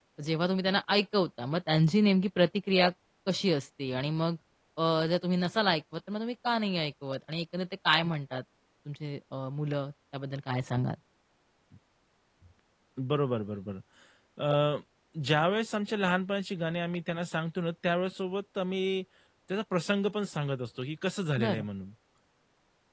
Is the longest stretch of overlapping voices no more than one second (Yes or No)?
Yes